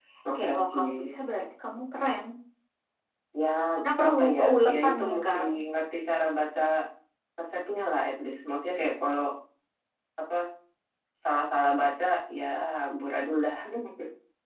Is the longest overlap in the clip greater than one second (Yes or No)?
Yes